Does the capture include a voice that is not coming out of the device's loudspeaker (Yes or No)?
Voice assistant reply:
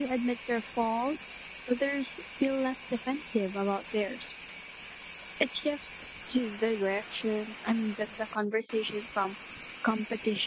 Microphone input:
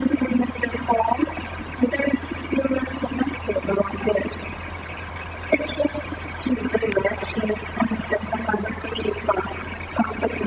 No